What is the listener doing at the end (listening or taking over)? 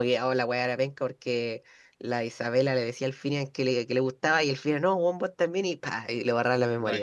taking over